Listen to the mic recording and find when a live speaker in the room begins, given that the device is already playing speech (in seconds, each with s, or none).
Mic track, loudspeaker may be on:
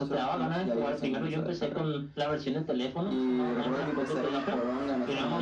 none